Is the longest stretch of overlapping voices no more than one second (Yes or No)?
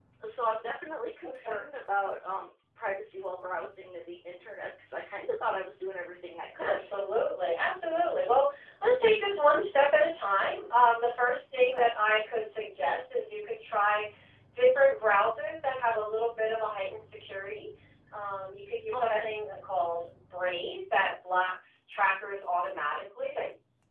Yes